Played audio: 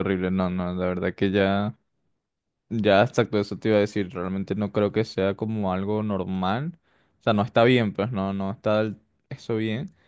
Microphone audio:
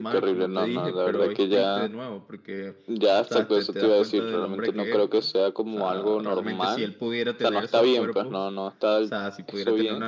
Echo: present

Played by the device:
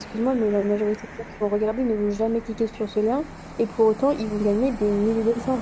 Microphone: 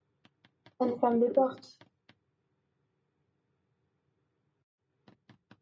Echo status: none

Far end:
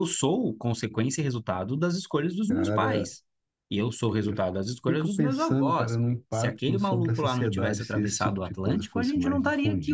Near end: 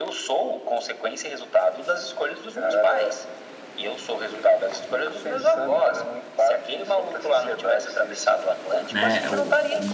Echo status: present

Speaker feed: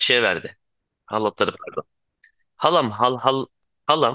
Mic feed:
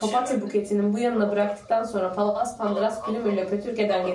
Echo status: present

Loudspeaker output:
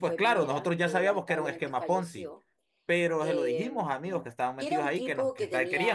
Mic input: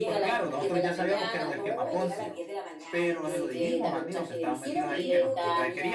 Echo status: present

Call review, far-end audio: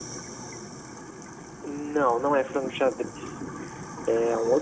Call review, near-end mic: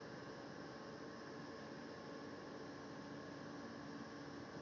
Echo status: none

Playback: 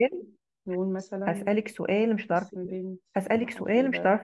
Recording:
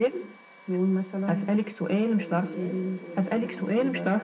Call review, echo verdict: present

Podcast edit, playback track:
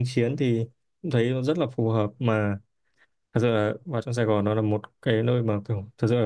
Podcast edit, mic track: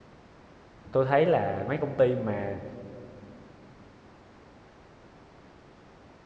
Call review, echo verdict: none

